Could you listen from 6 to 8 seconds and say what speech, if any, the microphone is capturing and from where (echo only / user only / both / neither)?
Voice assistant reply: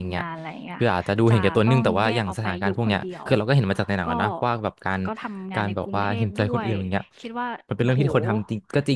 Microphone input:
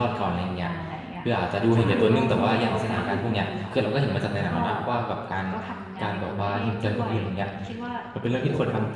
echo only